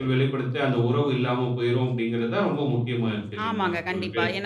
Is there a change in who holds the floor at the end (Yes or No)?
Yes